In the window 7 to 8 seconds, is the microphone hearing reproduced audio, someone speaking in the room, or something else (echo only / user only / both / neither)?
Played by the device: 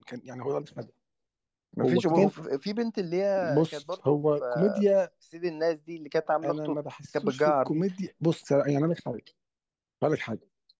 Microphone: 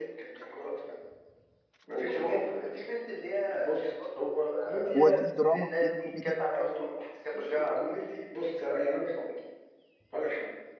echo only